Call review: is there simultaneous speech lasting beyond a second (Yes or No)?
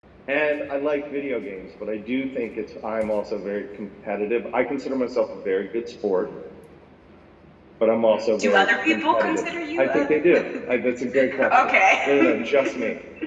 Yes